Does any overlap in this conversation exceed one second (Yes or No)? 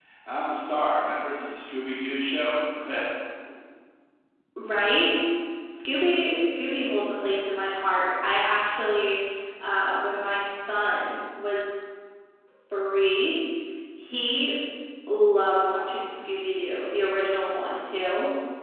No